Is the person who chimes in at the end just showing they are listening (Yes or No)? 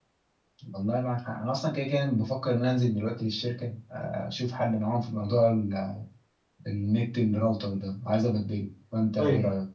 No